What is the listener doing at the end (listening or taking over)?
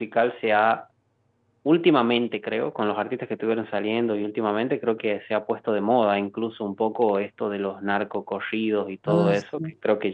listening